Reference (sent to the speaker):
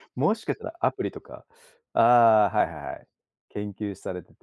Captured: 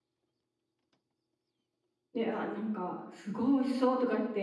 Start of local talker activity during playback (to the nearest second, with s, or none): 2 s